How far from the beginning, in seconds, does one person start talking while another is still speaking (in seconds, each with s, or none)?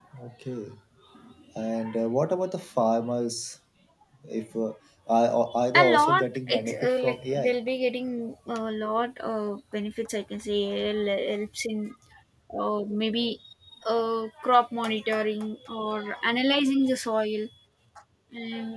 5.8 s